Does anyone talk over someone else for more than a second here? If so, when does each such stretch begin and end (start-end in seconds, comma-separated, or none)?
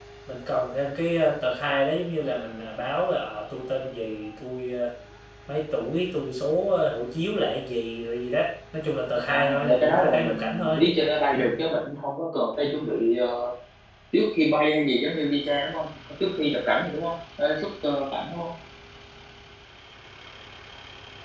9.3-10.8